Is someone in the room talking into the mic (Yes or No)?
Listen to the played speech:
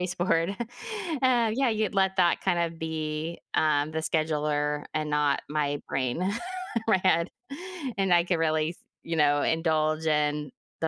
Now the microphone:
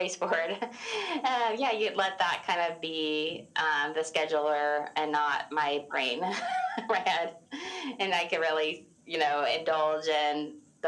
No